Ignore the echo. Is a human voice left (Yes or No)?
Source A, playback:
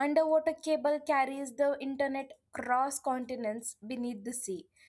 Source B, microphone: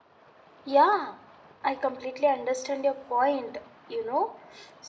Yes